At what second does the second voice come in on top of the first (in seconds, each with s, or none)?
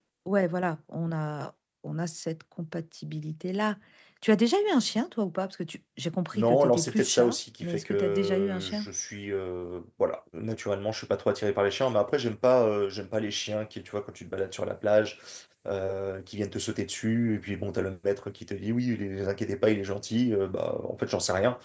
6.3 s